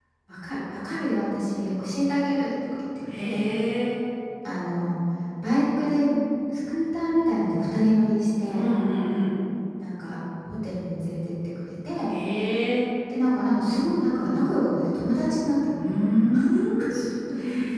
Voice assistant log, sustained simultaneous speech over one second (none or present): none